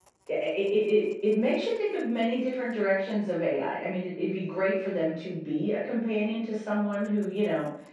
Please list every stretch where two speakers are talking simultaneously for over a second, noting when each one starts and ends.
none

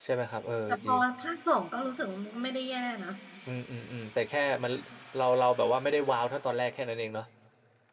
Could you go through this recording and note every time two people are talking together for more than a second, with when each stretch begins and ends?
none

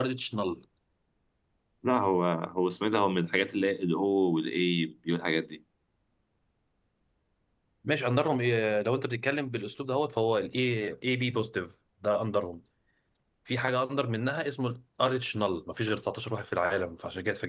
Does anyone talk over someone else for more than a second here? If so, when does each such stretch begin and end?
none

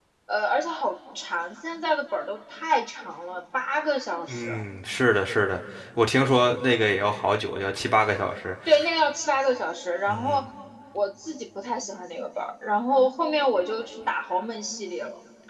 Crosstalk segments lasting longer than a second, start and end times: none

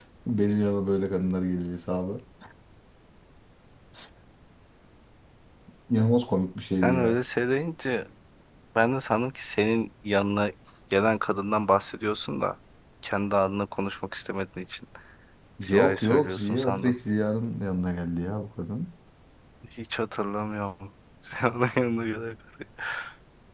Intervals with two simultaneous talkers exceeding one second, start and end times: 15.7-17.0

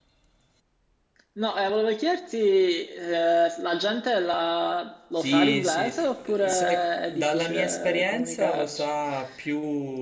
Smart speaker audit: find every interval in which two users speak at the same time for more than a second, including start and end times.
5.2-8.9

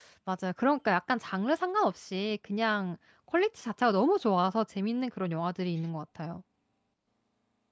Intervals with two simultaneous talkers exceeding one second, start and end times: none

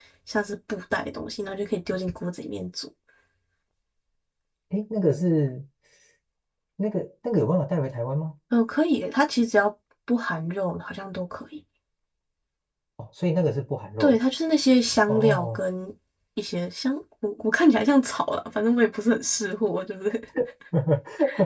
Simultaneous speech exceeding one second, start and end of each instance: none

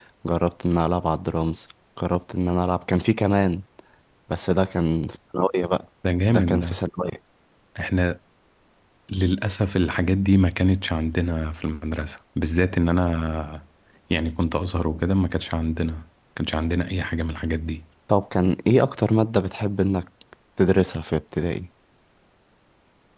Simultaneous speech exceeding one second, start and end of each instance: none

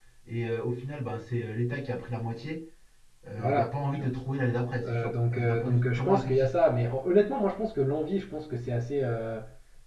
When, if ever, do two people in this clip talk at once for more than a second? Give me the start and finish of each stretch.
4.8-6.5

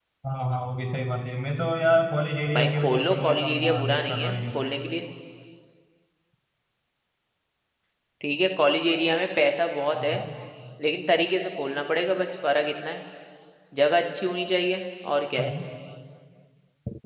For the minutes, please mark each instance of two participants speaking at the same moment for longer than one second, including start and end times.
2.6-4.6

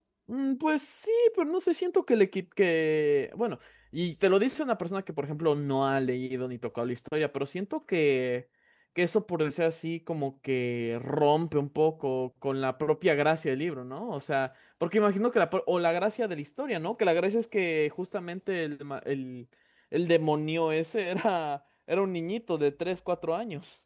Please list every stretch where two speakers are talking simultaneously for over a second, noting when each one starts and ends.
none

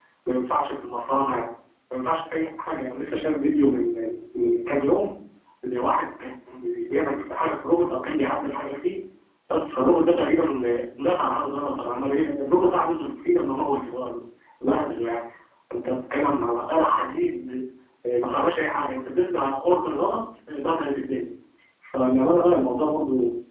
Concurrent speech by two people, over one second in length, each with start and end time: none

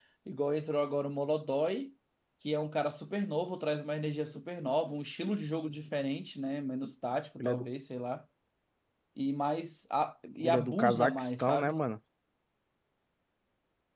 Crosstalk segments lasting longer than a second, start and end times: 10.4-11.8

